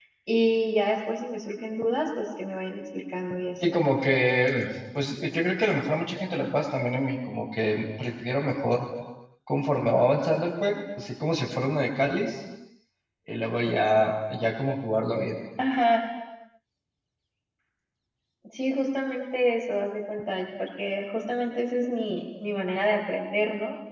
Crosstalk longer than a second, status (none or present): none